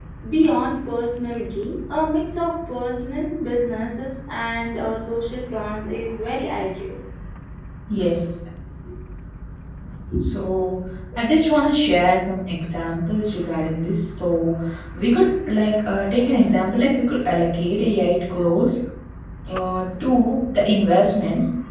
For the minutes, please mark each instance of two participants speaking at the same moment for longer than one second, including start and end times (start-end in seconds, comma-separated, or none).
none